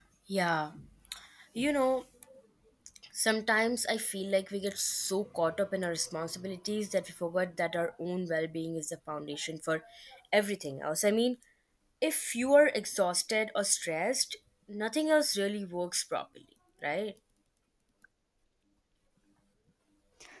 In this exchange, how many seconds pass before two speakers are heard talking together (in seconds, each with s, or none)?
none